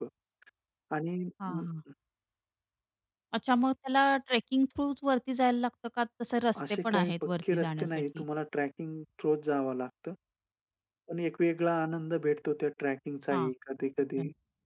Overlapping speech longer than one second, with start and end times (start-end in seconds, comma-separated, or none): 6.7-8.2